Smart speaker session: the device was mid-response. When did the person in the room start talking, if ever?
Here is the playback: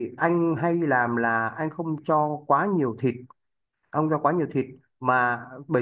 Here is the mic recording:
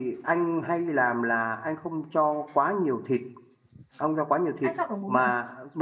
4.6 s

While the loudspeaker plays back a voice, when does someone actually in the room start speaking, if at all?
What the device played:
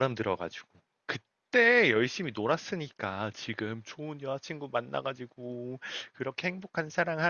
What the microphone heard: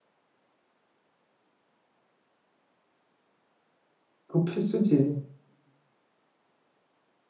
4.3 s

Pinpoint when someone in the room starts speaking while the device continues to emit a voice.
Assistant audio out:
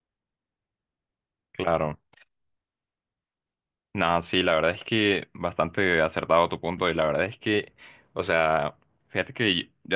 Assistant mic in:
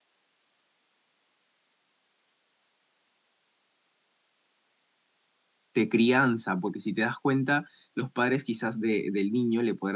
5.7 s

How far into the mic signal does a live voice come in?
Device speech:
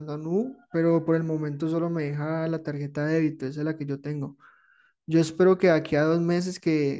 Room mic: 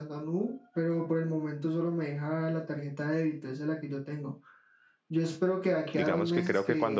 5.9 s

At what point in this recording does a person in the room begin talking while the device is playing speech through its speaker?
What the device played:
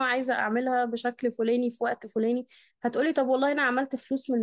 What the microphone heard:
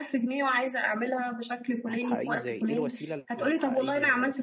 1.9 s

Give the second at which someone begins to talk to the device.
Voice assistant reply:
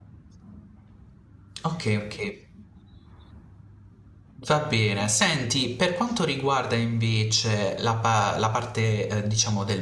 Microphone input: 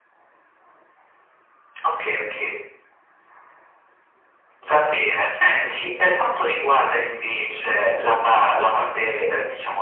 none

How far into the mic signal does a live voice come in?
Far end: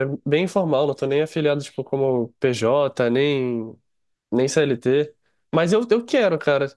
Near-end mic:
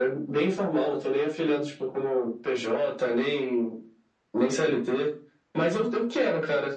none

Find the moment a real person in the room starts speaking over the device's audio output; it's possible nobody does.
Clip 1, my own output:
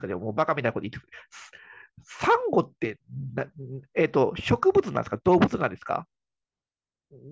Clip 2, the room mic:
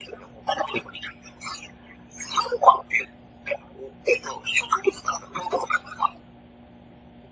none

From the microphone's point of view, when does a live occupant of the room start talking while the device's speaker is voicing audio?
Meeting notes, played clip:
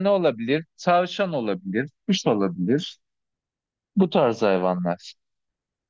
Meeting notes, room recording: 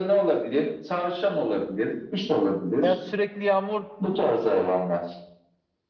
2.8 s

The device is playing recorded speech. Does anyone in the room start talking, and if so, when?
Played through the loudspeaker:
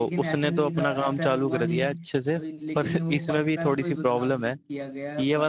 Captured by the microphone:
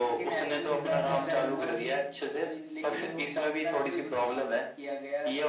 0.7 s

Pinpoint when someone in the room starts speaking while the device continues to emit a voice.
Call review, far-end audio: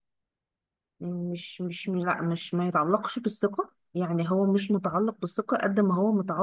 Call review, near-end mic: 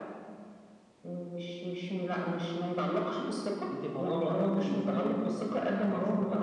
3.7 s

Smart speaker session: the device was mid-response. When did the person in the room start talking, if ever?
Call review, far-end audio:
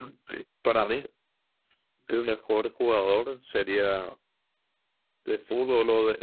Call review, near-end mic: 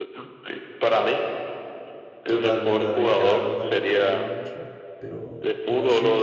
2.2 s

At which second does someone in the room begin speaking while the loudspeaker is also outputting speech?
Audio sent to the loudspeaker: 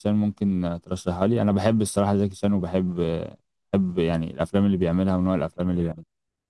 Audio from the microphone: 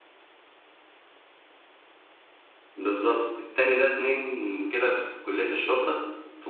2.8 s

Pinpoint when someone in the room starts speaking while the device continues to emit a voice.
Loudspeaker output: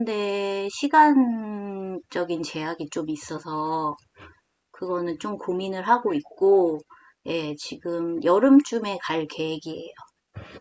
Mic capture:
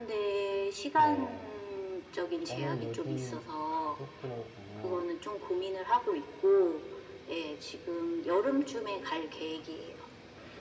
0.9 s

